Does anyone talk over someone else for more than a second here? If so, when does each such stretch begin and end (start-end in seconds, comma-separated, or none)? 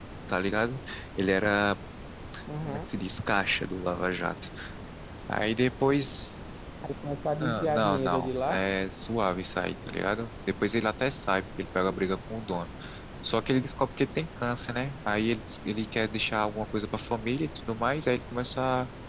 7.4-8.6